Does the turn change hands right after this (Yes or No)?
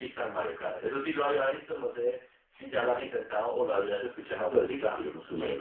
Yes